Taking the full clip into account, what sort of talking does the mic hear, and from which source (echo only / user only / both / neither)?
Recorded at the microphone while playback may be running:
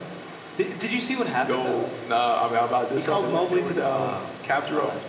echo only